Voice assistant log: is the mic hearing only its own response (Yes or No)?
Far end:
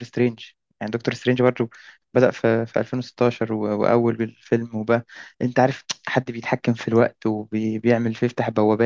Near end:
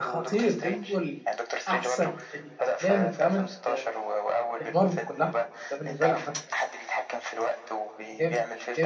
No